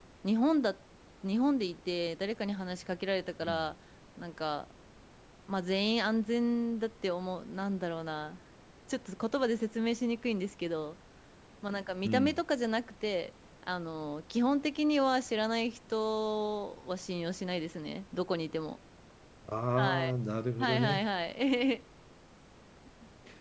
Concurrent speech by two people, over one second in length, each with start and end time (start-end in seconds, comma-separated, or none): none